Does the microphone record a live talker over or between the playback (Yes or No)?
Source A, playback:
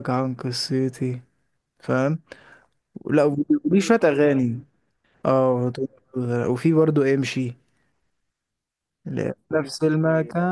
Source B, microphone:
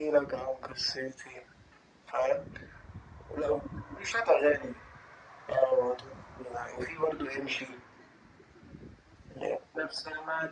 No